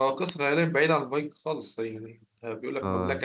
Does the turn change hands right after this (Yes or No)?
Yes